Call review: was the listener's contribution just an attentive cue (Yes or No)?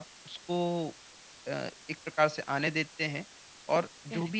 Yes